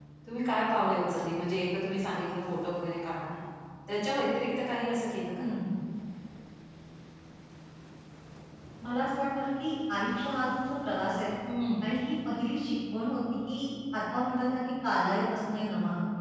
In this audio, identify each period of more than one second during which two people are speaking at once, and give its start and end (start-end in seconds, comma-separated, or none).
none